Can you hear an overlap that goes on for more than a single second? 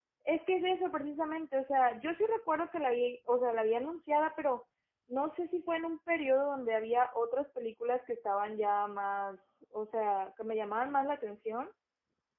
No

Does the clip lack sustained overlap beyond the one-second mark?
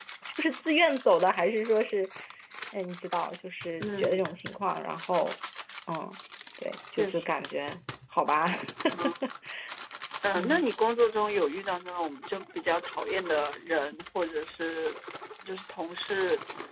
Yes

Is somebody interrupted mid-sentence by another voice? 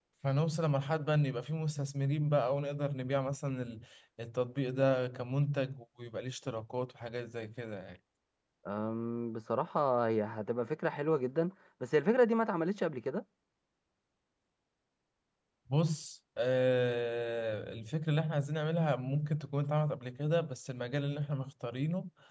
No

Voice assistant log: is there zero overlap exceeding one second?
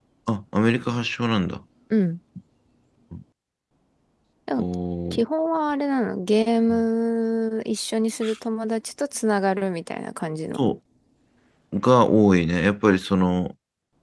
Yes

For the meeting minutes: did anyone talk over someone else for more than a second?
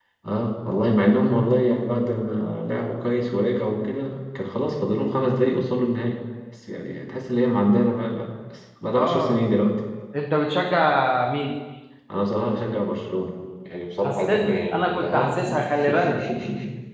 Yes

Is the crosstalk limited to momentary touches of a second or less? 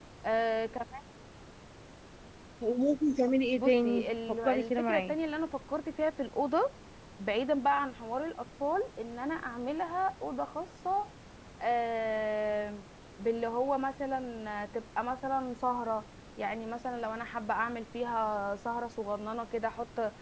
No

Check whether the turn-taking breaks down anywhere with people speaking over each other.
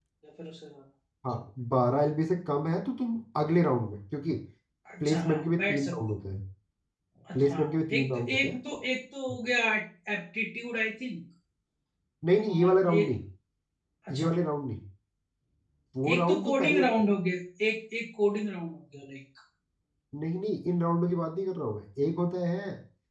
Yes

